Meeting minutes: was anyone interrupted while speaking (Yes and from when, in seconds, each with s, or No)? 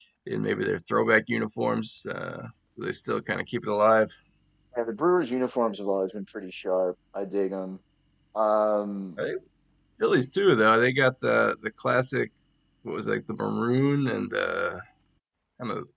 No